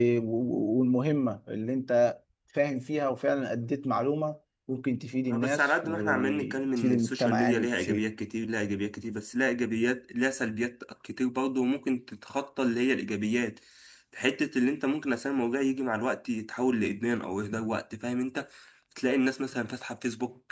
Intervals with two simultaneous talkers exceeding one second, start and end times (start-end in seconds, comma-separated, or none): 5.3-8.0